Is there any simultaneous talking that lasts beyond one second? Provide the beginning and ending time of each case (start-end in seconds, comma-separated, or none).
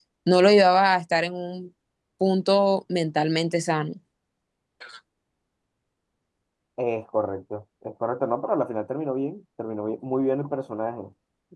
none